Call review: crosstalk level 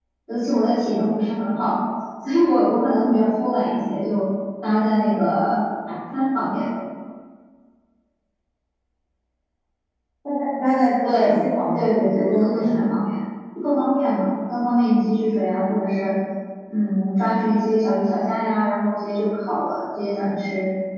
present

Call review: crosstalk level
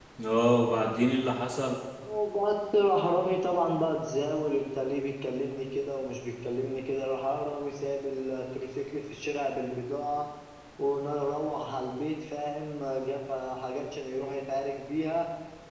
none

